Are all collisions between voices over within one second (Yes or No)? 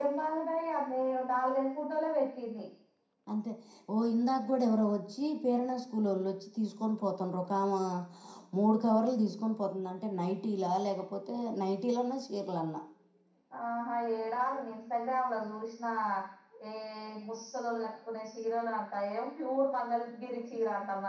Yes